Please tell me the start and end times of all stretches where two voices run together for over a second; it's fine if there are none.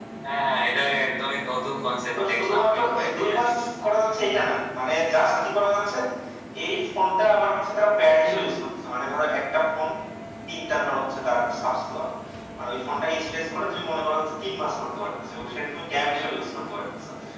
2.1-3.5

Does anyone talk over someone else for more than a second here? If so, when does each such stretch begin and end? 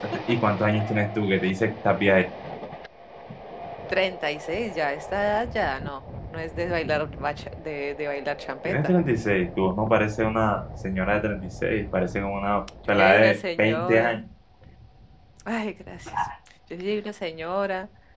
12.9-14.2

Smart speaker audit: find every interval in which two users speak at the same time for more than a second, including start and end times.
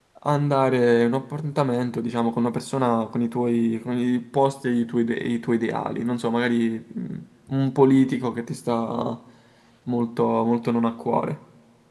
none

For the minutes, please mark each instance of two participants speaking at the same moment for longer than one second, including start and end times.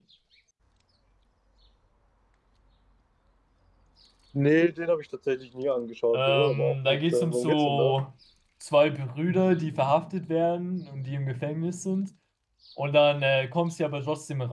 6.1-7.9

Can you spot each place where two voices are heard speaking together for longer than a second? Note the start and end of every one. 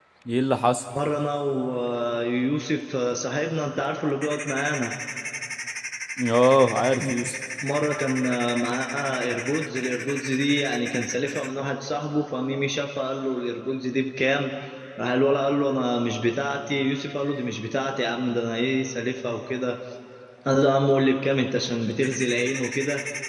none

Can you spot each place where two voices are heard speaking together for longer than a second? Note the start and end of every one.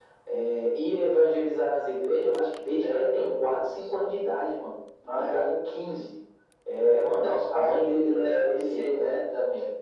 2.8-4.1, 7.0-9.2

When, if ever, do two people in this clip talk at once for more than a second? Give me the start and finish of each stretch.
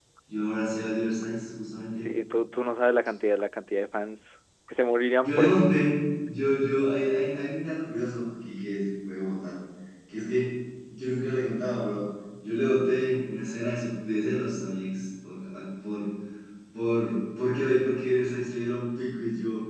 none

